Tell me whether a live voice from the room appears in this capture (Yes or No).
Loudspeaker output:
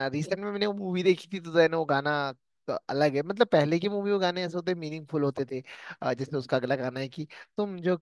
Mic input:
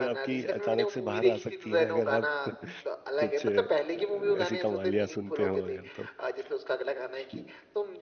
Yes